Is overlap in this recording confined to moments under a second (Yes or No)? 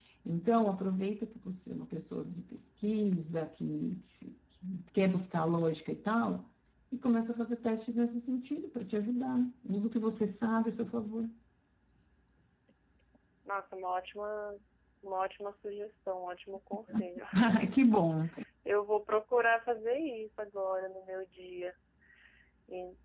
Yes